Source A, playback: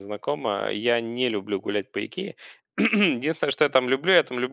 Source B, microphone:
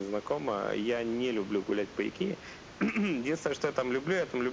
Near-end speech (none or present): none